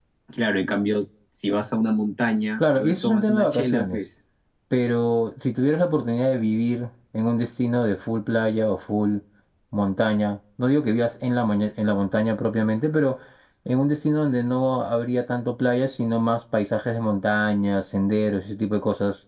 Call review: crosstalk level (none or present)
present